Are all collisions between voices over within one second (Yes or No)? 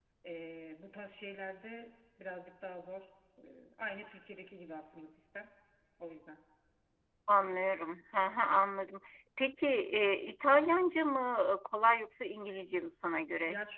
Yes